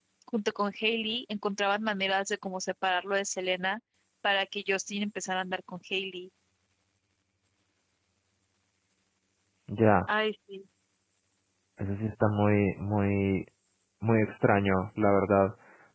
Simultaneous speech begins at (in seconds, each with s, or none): none